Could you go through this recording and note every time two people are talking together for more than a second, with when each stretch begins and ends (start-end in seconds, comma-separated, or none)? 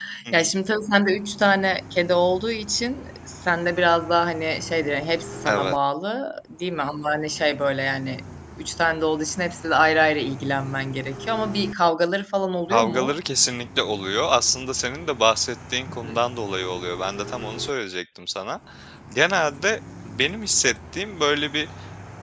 none